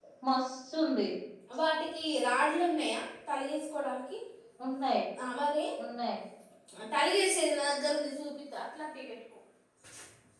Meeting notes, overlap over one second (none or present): none